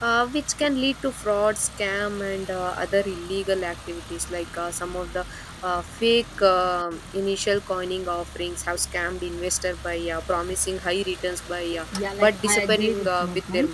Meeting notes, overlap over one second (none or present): present